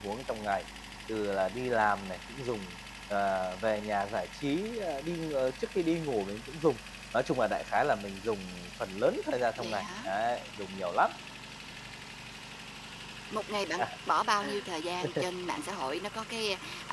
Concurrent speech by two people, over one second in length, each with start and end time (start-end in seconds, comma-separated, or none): none